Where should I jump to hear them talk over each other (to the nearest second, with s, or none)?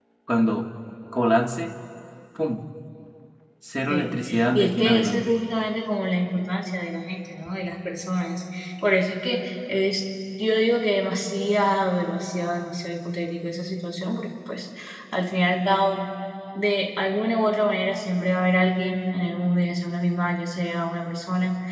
4 s